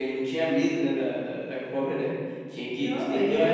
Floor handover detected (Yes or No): Yes